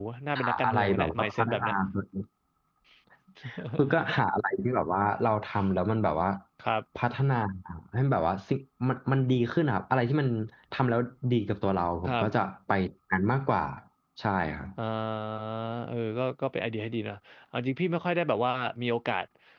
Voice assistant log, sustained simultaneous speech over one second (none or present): present